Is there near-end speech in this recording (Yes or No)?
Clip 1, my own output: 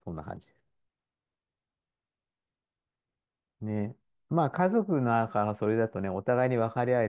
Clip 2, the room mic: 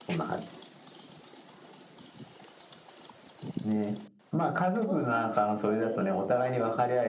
Yes